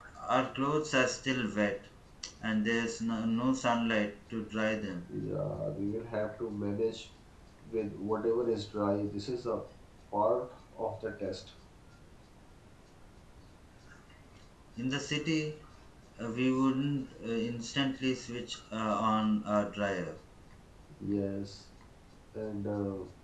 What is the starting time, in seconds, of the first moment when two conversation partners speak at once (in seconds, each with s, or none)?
none